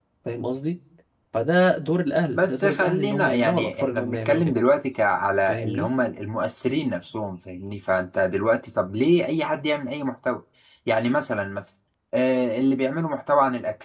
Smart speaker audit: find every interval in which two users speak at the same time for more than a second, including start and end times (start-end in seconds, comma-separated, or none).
2.3-4.5